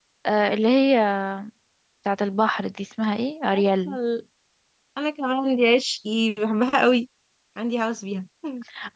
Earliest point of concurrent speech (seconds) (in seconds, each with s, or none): none